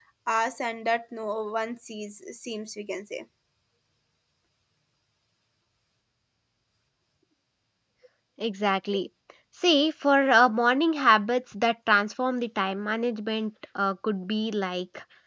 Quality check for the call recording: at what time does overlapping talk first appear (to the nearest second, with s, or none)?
none